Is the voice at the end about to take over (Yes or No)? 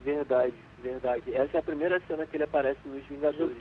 Yes